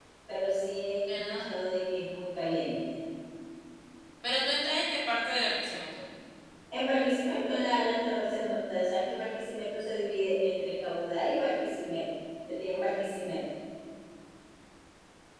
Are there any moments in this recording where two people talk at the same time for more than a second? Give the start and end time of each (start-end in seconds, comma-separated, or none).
none